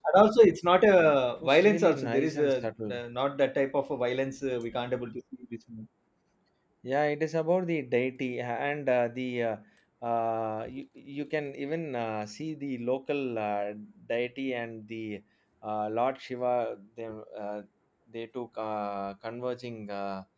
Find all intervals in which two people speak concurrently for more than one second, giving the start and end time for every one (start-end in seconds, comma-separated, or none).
1.4-3.0